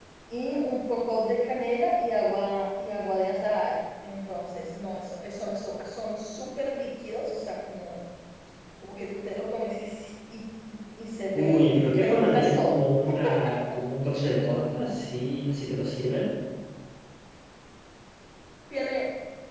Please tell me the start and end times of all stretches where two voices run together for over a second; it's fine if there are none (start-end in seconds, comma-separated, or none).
11.4-12.8